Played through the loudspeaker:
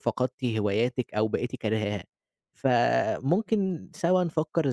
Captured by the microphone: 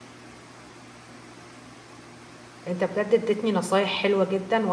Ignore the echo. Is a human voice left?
Yes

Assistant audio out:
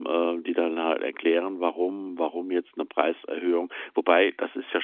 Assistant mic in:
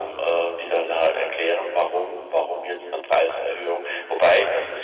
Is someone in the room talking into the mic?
No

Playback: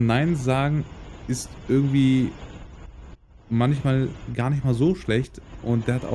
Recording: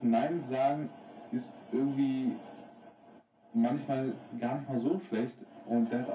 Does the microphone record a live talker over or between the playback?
No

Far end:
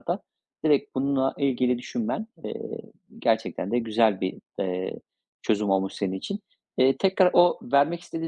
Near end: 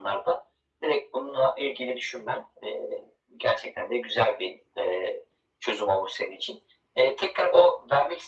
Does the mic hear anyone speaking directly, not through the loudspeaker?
No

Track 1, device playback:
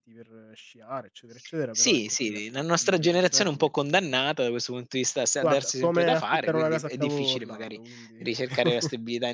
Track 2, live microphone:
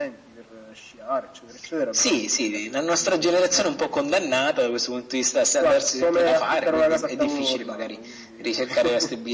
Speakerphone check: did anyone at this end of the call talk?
No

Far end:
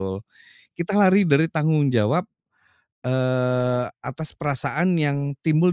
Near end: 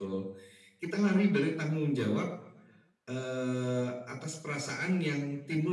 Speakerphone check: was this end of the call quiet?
Yes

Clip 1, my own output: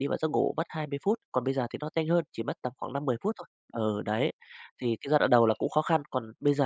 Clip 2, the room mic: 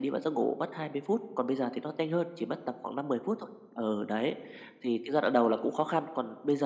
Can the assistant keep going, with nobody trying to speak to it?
Yes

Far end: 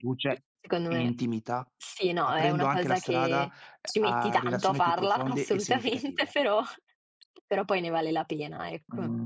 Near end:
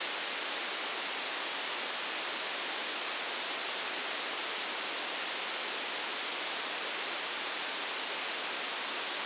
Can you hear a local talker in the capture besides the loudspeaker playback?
No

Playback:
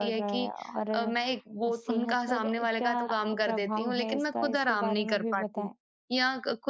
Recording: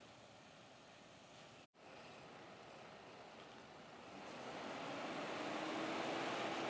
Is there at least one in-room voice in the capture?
No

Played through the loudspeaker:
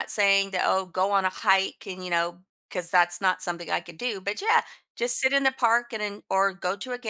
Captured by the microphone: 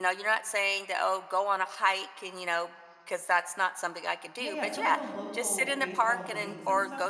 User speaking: Yes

